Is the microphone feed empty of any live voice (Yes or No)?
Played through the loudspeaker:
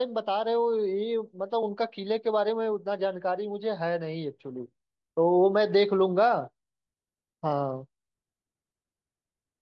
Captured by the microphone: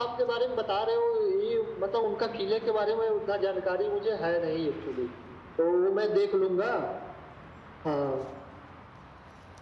Yes